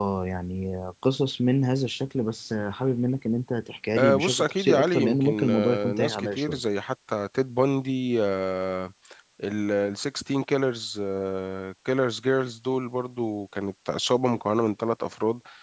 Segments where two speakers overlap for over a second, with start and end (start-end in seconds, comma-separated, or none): 4.0-6.6